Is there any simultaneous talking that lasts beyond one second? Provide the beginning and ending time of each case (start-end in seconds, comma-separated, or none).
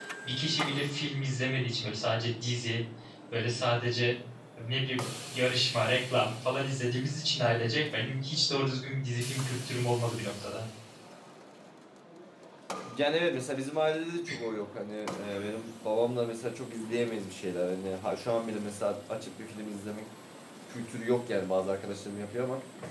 none